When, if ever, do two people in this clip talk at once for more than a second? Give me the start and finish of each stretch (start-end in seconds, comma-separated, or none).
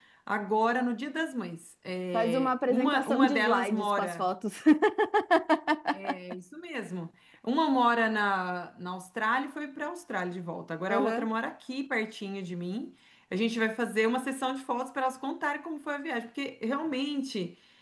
2.1-4.3